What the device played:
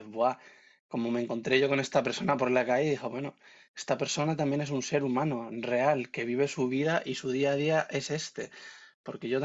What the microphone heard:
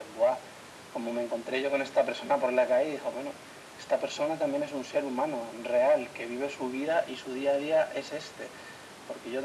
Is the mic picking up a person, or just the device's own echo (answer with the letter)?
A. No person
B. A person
A